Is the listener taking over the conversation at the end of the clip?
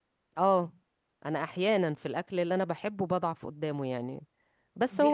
No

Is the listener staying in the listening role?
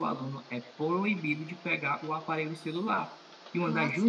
Yes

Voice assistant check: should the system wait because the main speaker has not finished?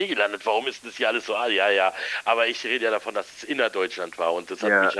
Yes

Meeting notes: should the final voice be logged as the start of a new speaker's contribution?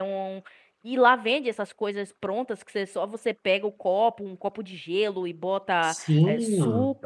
Yes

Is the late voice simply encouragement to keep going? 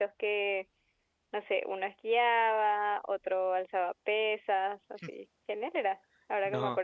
Yes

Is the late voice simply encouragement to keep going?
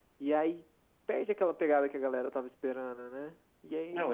Yes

